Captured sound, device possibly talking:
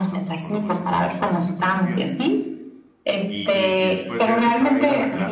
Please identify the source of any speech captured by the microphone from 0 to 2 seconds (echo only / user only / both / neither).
both